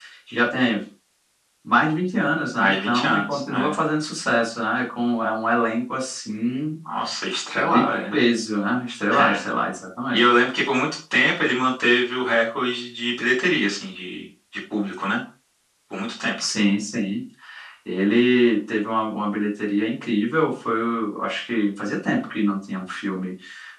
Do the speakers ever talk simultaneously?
Yes, from 2.6 s

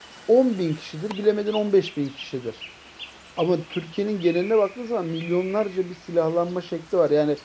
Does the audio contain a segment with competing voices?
No

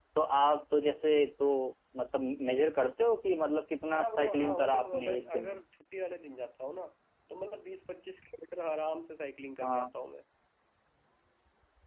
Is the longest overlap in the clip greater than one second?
Yes, from 3.9 s

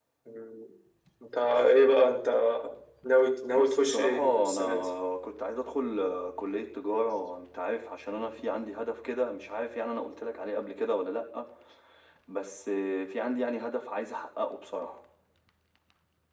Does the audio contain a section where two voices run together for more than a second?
Yes, from 3.5 s

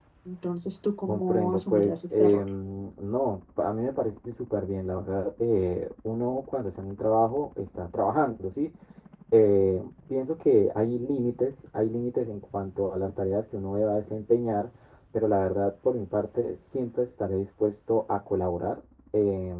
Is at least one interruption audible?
Yes, from 1.1 s

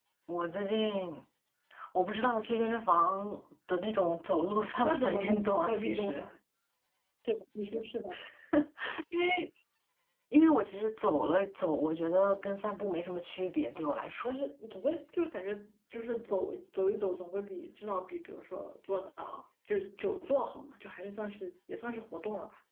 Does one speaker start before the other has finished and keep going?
Yes, from 4.8 s

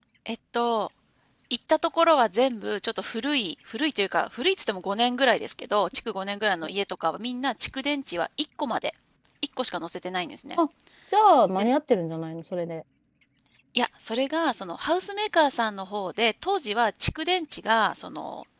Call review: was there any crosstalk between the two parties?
No

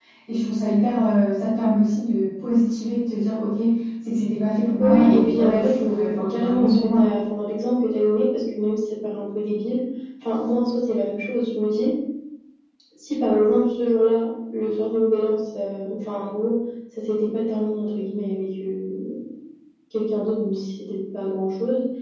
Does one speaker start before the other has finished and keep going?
Yes, from 4.8 s

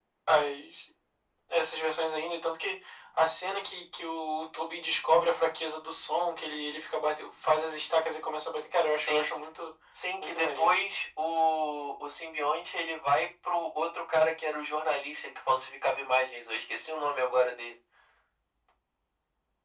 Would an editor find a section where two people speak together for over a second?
No

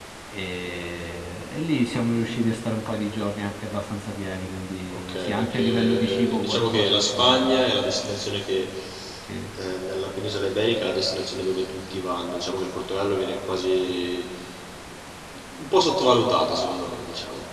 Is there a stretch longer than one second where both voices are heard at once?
Yes, from 4.9 s

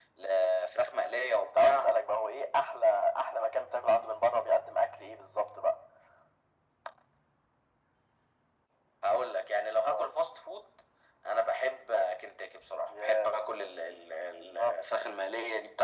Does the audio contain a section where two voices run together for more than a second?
No

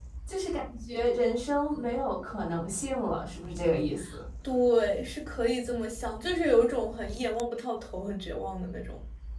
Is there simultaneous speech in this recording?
No

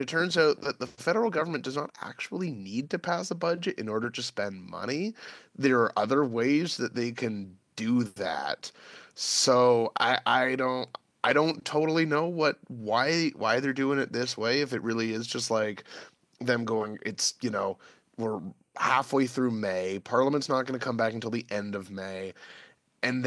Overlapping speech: No

